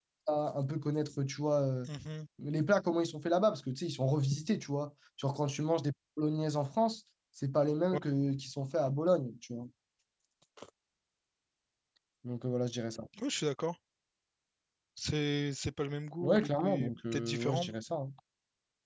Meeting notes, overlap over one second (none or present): present